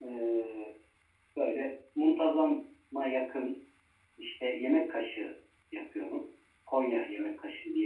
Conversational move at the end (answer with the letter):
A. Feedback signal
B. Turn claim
A